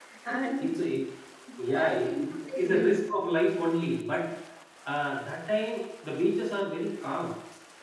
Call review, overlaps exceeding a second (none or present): present